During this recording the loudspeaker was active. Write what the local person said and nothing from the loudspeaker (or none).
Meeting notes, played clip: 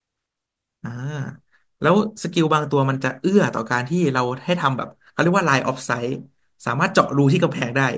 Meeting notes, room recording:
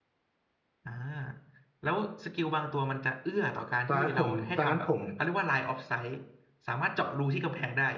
ตอนนั้นผมตอนนั้นผม